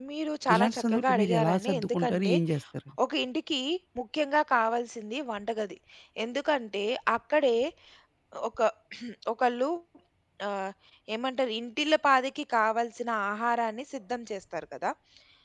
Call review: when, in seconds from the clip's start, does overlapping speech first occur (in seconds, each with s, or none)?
0.6 s